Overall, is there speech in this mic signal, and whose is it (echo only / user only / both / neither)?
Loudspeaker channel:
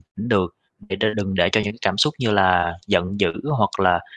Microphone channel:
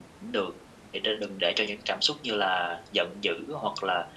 echo only